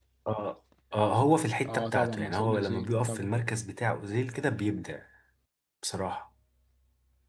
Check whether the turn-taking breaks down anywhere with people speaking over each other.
Yes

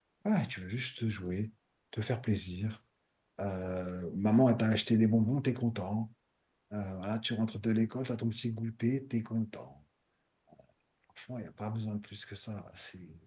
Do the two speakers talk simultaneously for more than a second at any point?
No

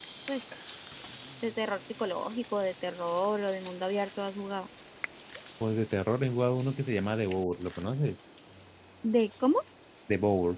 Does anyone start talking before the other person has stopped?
No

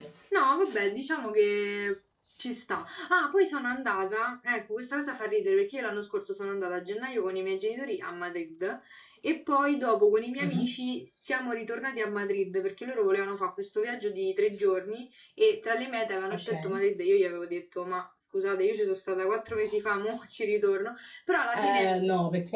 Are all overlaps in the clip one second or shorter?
Yes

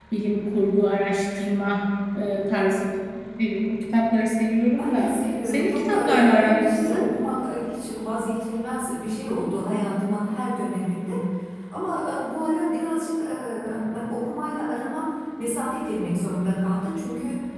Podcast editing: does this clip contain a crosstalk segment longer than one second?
Yes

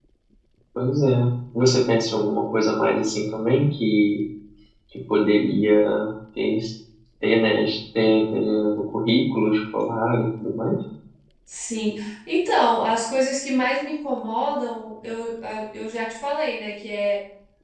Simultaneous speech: No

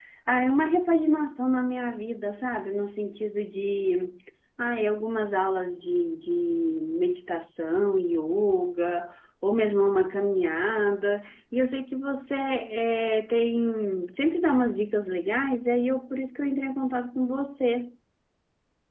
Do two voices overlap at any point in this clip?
No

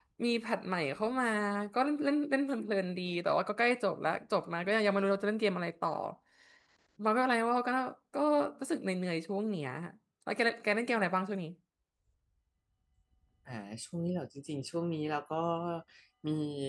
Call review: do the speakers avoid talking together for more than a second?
Yes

